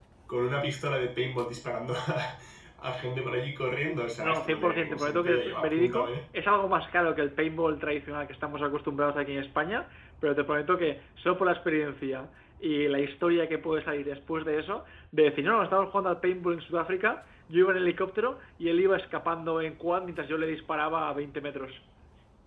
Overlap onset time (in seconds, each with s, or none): 4.2 s